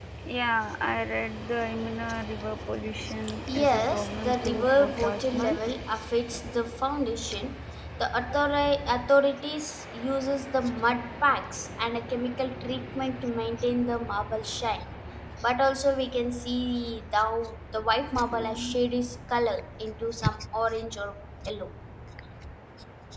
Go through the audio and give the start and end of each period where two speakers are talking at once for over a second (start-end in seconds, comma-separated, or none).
3.6-5.6